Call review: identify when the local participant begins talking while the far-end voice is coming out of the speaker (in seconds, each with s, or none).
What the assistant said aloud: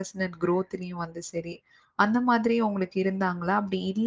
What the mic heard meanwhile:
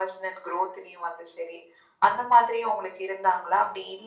none